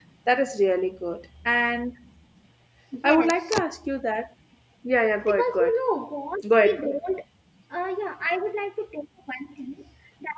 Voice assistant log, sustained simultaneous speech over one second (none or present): none